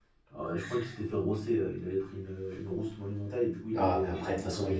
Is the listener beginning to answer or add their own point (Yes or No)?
Yes